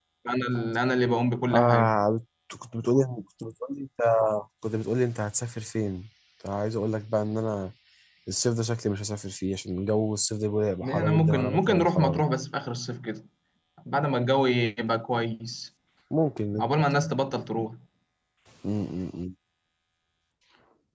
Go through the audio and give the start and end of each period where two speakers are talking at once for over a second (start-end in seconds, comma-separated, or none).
10.8-12.2